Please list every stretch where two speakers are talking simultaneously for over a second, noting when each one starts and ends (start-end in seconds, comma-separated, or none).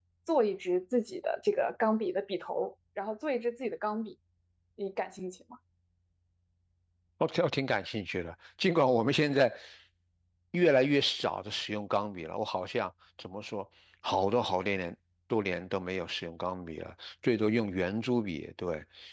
none